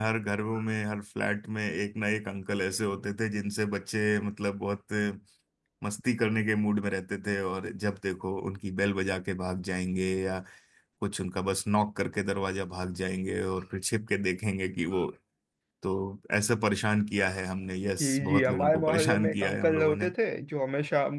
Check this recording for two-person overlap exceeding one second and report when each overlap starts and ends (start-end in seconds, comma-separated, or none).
18.0-20.1